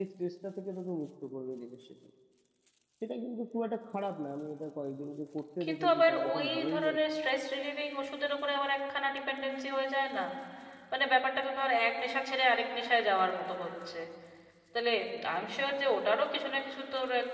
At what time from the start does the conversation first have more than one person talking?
5.6 s

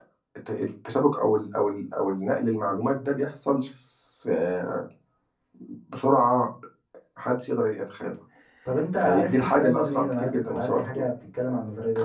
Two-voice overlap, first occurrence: 9.0 s

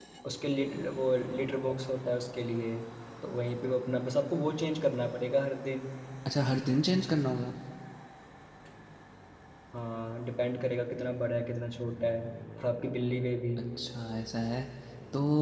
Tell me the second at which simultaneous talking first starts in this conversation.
none

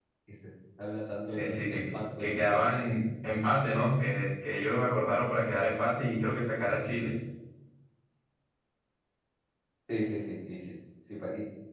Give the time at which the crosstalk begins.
1.3 s

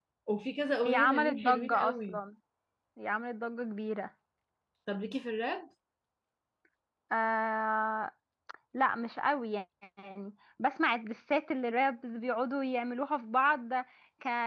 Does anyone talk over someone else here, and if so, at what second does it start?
0.8 s

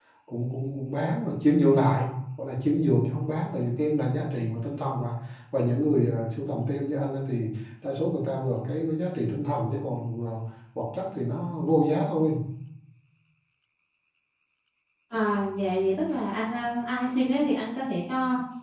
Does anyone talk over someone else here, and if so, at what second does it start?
none

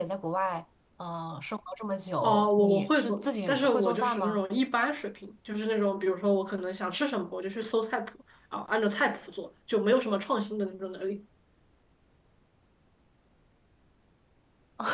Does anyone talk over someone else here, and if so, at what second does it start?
2.2 s

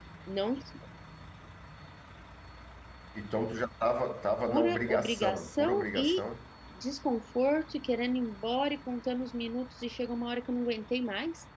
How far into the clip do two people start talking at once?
4.5 s

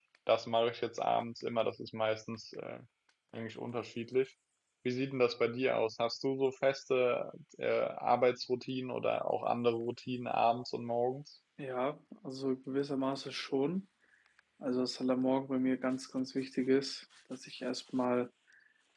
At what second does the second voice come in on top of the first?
none

